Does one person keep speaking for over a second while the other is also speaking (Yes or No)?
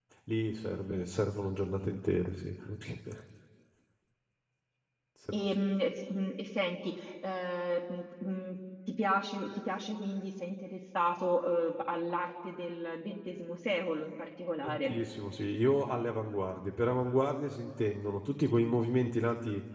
No